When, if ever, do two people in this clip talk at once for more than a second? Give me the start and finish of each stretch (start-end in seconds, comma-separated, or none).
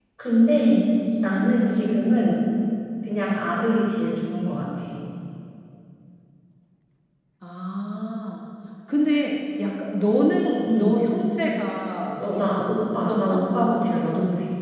none